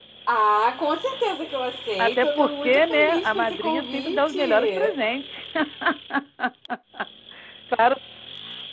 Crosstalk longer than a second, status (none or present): present